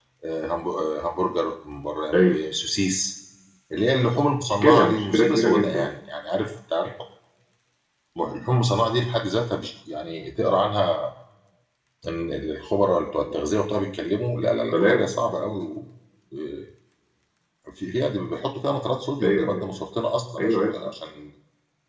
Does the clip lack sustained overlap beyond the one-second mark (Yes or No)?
No